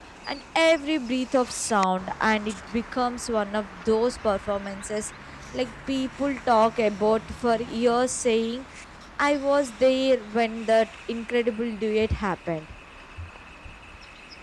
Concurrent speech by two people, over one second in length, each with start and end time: none

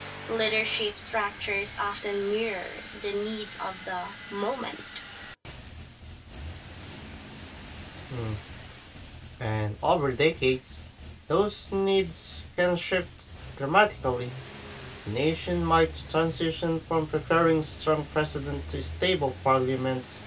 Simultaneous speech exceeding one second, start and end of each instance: none

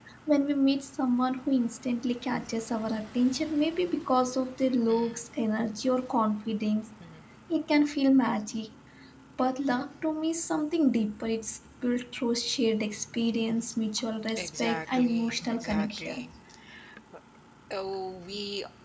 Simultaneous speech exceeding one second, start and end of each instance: 14.4-16.3

